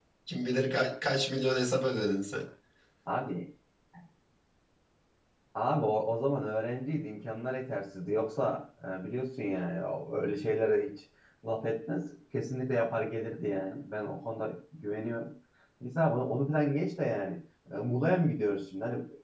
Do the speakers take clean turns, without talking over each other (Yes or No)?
Yes